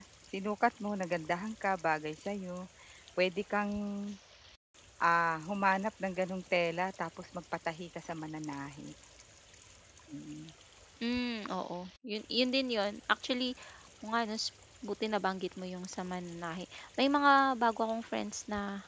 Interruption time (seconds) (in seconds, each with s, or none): none